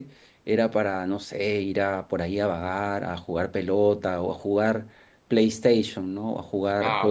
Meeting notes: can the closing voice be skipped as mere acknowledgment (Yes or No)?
No